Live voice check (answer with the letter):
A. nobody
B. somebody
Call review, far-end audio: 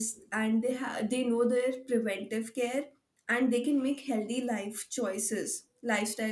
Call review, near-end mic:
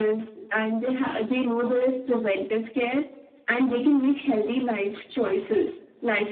A